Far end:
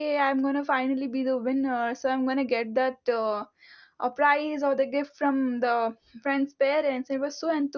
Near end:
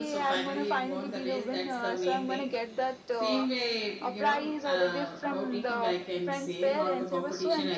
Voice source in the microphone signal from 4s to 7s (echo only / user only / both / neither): both